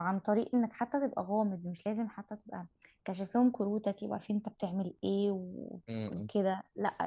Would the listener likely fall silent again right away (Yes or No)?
Yes